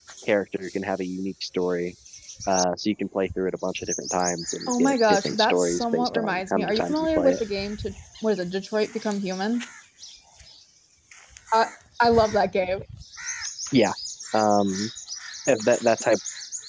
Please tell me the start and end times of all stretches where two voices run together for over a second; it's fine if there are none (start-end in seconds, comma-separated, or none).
4.7-7.4